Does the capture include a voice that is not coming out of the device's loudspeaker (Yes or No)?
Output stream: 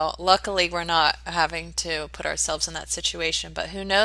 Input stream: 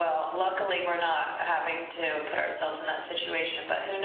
No